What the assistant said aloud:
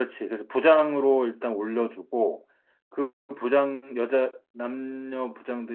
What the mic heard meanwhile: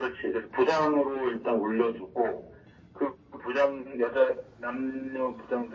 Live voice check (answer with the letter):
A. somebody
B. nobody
B